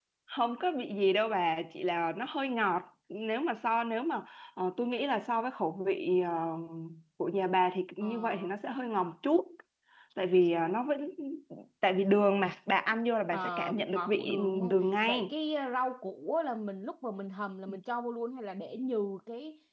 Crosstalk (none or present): present